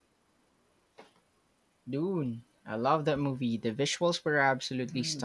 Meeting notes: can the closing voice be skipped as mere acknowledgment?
No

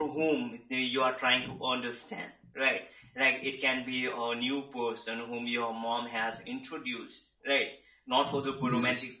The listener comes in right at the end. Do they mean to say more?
No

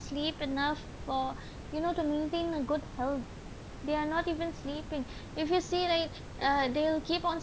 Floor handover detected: No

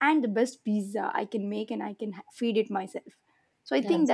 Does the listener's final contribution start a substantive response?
No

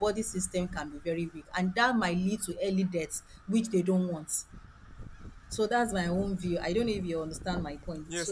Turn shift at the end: Yes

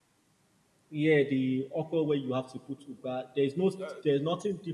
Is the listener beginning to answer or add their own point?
No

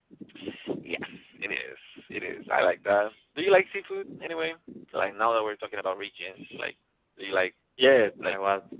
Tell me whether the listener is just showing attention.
No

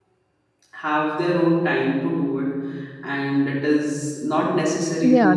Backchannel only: No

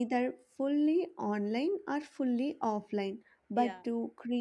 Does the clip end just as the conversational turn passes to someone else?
No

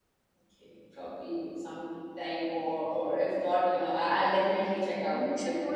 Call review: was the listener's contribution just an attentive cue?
No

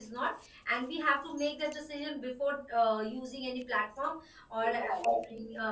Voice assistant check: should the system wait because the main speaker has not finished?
Yes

